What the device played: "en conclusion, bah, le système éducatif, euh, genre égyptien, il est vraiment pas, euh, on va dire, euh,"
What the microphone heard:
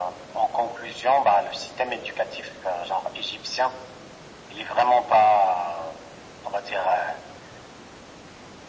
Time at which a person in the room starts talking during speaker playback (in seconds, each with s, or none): none